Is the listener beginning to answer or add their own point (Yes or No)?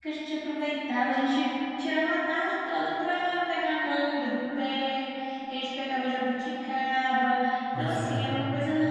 No